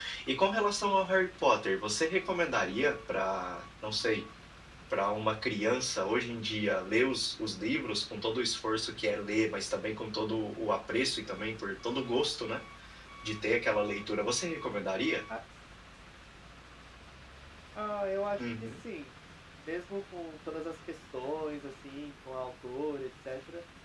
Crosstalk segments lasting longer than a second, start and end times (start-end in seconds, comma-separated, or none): none